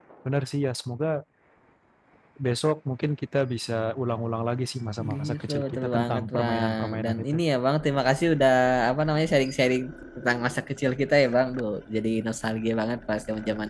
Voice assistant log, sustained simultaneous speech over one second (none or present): present